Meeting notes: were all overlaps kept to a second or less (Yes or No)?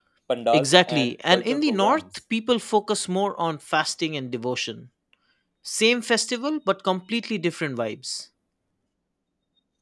No